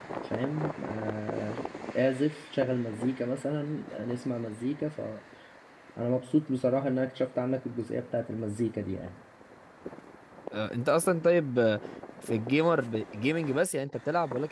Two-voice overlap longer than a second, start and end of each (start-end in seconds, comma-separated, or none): none